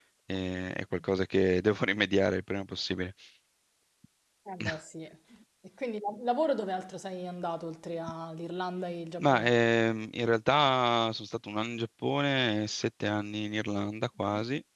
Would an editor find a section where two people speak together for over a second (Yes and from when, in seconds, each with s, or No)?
No